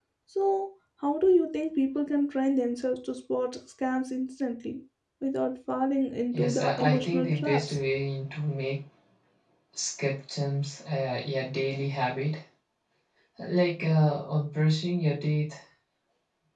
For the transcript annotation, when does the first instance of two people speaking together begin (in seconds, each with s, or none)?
6.3 s